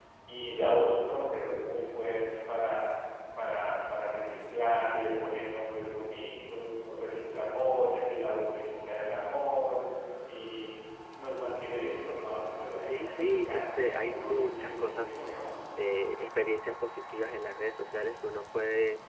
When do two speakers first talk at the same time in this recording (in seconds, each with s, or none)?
12.8 s